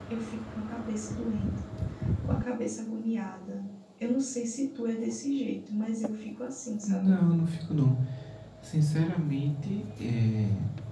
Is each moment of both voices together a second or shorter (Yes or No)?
Yes